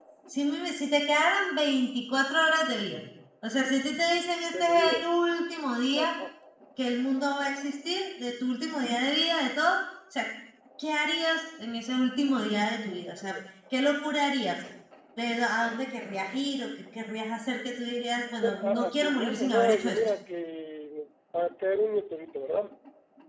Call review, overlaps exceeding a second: present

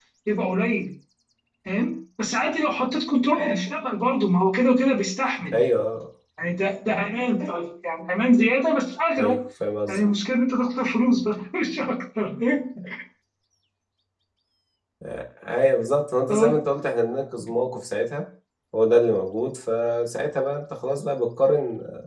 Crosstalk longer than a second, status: none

